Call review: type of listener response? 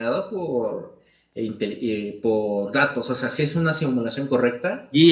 taking over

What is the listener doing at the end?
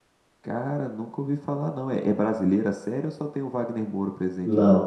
taking over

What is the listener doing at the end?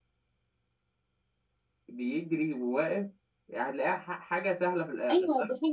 taking over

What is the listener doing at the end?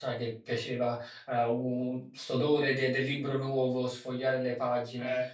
listening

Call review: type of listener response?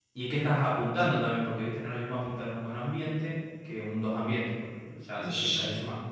taking over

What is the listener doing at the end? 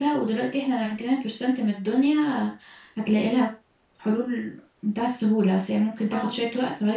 listening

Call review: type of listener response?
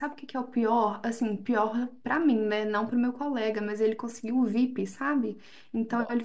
listening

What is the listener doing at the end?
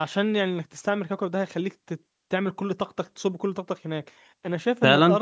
listening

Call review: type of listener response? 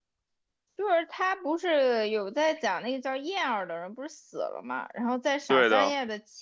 listening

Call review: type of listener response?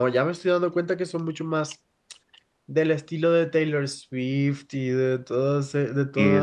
taking over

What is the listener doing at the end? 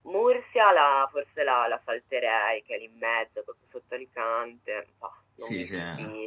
taking over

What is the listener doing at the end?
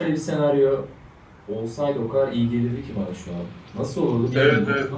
taking over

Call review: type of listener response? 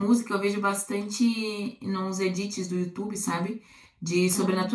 listening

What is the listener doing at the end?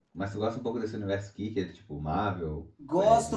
taking over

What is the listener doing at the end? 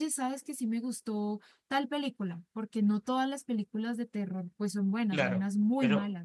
taking over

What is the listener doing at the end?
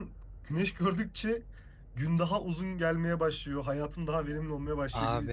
taking over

